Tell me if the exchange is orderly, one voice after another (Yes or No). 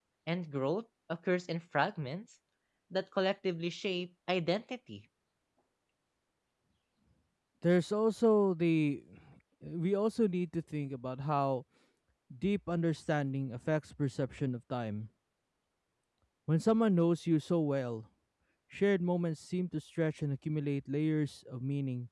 Yes